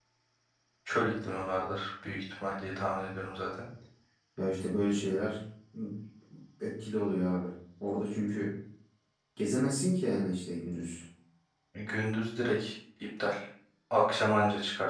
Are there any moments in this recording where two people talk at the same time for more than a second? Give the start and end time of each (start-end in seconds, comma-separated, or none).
none